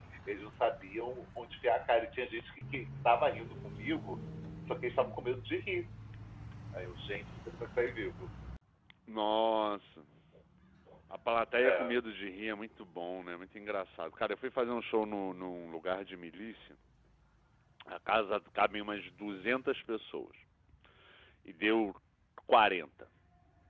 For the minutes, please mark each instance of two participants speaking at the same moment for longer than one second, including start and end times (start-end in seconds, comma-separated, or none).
none